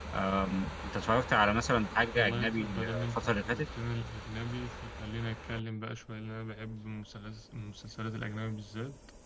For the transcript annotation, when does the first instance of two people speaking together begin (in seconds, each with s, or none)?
2.2 s